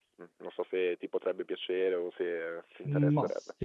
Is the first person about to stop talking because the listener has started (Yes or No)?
Yes